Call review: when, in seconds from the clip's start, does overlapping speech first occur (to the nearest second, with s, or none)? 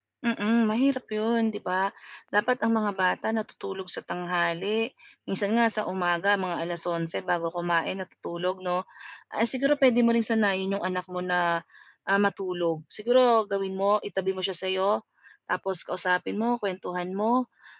none